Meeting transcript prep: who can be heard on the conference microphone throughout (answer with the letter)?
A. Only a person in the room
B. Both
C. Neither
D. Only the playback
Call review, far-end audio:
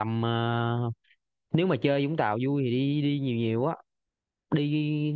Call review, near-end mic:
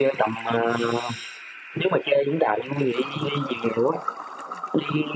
D